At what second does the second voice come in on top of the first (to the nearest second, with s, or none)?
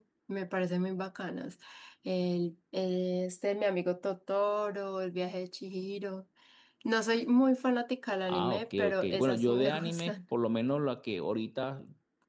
8 s